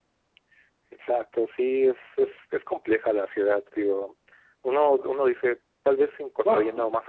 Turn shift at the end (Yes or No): No